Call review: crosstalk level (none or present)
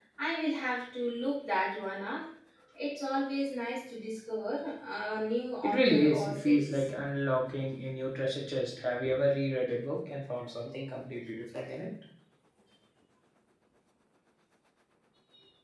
present